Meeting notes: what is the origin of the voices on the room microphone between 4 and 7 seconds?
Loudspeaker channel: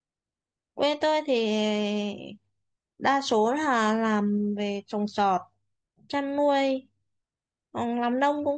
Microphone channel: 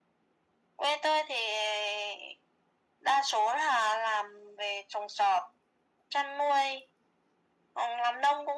echo only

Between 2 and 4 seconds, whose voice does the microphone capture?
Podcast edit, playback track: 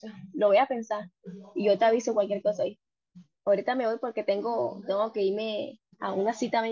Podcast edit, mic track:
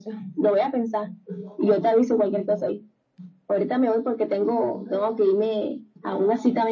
echo only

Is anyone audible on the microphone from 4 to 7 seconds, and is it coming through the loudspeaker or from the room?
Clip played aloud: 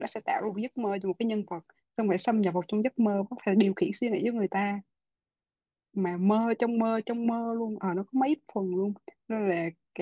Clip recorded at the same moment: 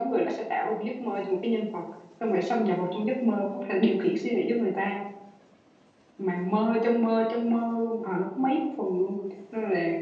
echo only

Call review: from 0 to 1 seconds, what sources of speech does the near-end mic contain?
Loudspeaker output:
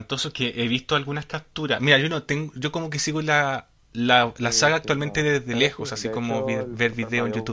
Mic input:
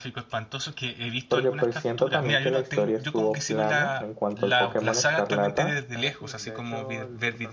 echo only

